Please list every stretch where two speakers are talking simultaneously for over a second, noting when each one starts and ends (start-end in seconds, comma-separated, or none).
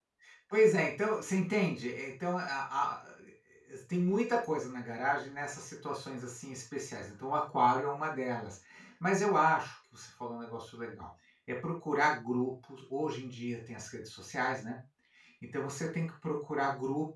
none